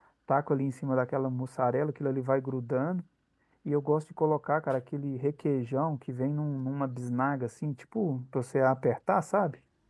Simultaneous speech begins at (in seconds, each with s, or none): none